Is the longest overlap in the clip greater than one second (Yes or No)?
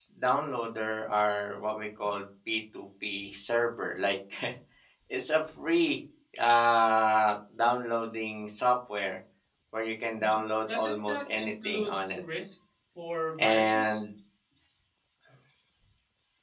Yes